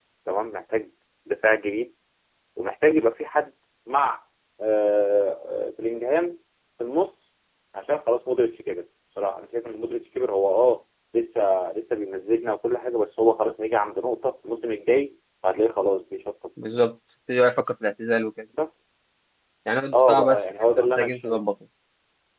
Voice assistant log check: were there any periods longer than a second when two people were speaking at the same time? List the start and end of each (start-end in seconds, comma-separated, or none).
19.9-21.4